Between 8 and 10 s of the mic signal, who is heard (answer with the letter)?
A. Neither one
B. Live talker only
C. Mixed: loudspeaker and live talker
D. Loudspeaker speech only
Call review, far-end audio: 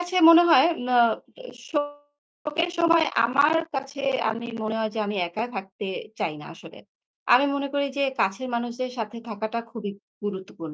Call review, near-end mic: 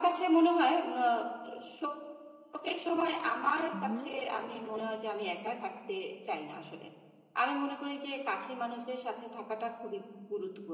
D